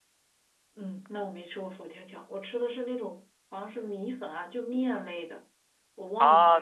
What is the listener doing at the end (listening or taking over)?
taking over